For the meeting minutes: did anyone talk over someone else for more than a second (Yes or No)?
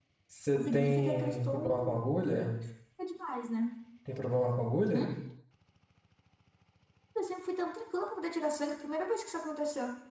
Yes